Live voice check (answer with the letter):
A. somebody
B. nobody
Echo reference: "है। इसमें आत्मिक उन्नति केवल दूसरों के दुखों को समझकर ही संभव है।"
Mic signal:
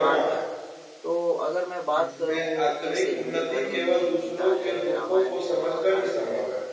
A